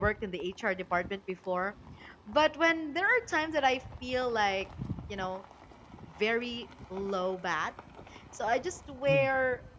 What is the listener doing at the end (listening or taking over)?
listening